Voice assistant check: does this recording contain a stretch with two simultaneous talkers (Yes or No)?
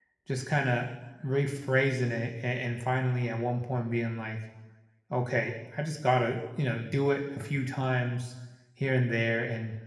No